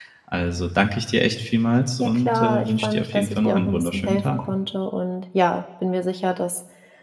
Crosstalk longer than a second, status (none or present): present